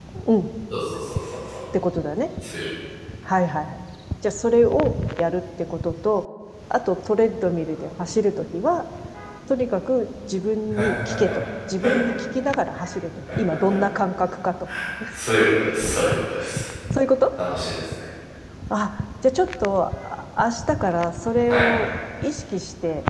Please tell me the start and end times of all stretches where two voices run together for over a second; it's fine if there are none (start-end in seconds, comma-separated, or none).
none